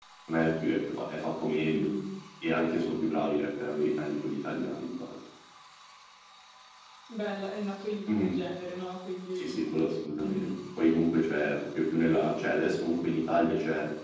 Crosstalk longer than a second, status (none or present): none